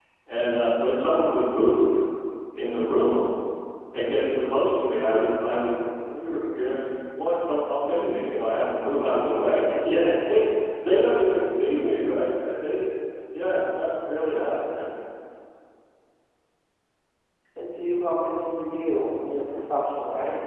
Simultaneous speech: No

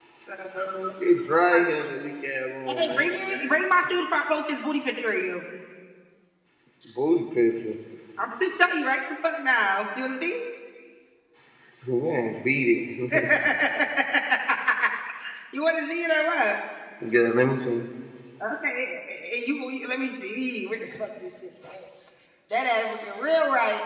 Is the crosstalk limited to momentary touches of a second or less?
Yes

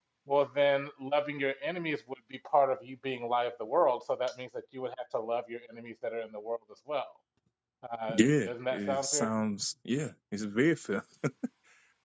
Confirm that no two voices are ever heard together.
No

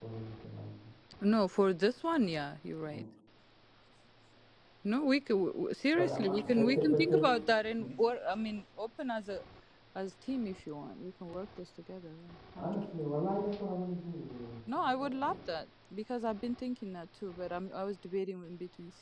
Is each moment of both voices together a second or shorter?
No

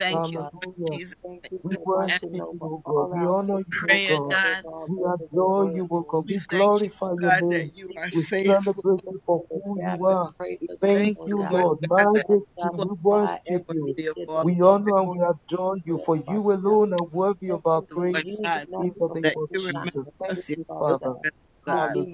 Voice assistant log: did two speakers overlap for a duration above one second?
Yes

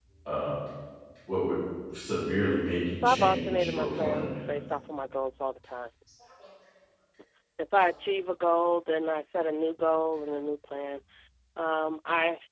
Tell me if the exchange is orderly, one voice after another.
No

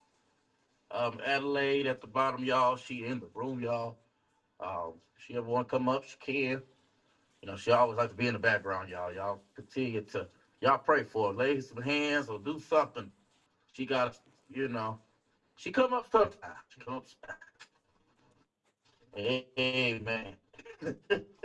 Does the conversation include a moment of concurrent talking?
No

